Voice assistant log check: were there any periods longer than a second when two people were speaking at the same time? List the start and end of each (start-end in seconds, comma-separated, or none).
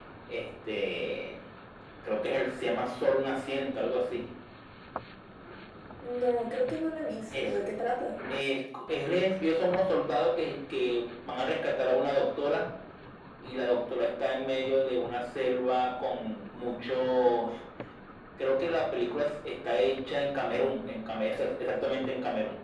none